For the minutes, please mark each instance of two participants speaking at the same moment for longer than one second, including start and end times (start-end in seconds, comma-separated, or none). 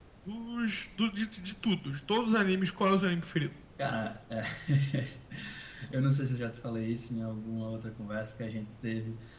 none